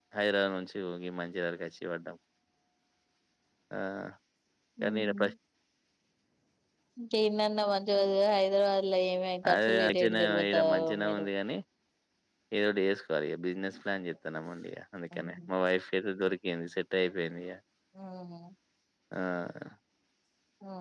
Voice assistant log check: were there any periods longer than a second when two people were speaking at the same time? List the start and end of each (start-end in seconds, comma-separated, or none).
9.5-11.3